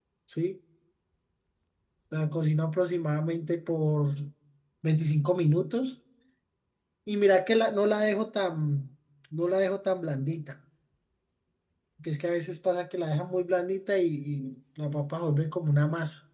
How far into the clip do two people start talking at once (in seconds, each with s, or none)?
none